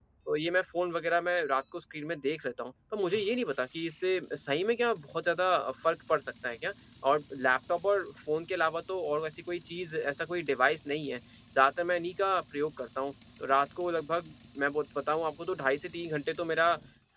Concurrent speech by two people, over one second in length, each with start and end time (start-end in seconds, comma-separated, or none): none